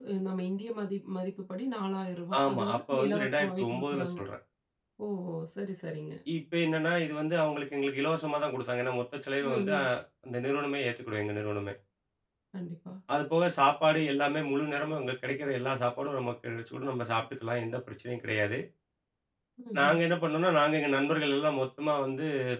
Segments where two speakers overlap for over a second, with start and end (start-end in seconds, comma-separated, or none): 2.4-4.2